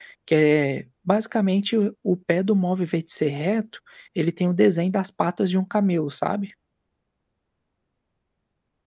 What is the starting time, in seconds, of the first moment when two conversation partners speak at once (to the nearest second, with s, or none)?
none